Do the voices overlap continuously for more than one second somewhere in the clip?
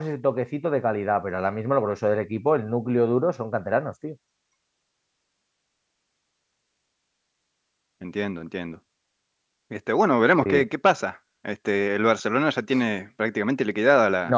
No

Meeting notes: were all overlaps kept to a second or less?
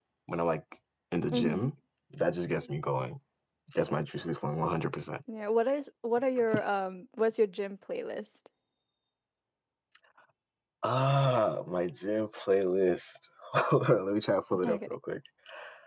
Yes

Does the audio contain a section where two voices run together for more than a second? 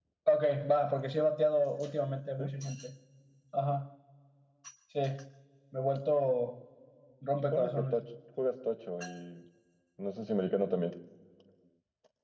No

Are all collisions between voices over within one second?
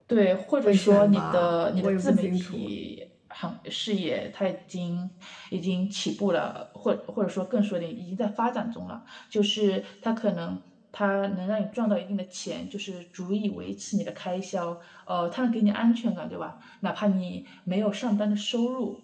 No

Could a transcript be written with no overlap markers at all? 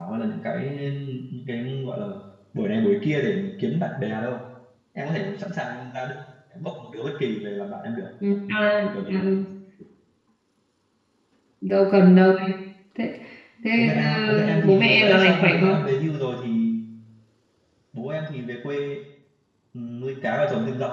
No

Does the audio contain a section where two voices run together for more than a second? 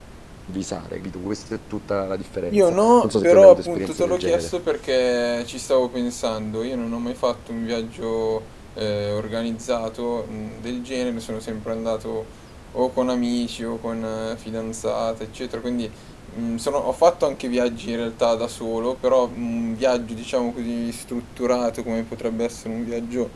Yes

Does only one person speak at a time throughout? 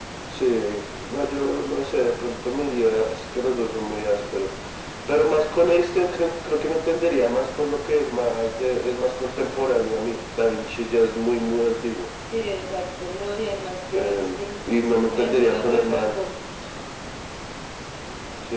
No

